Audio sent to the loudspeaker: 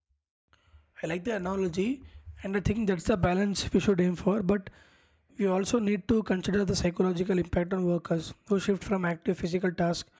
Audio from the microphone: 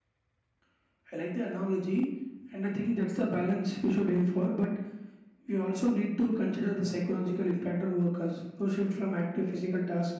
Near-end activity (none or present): none